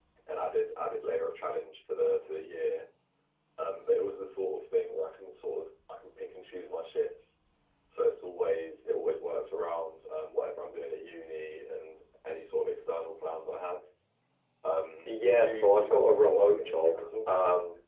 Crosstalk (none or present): present